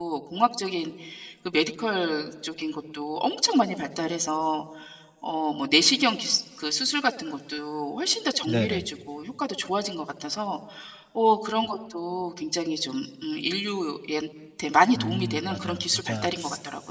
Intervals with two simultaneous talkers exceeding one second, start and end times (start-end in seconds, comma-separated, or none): 14.9-16.3